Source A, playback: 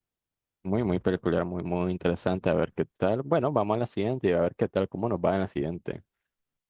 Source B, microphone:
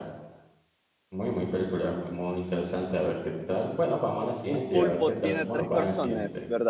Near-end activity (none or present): present